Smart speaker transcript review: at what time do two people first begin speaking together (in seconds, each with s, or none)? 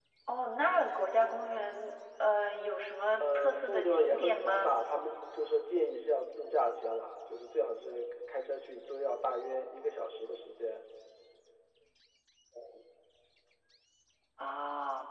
3.2 s